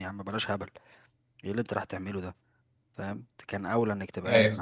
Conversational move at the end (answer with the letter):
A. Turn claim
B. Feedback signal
B